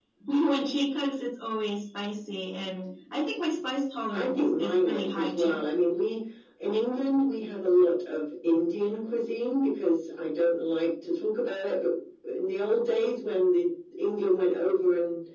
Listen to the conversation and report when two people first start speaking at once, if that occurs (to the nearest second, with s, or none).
4 s